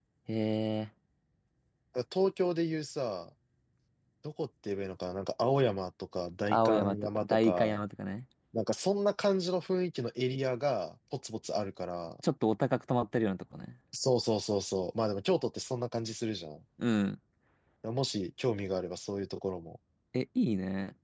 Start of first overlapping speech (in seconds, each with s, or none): 6.5 s